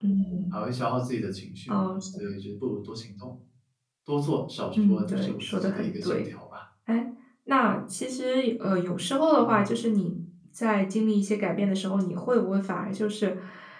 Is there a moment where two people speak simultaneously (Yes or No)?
Yes